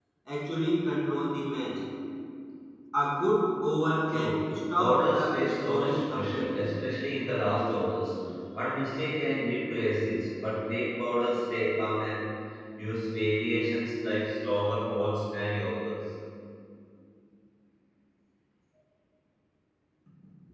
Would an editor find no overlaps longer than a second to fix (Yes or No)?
No